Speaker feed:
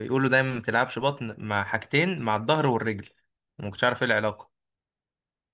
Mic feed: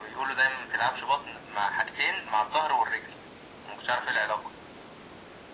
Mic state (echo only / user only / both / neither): echo only